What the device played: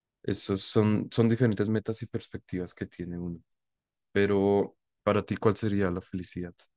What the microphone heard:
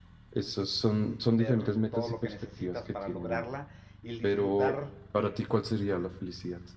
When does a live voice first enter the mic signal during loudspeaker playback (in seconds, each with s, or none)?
1.2 s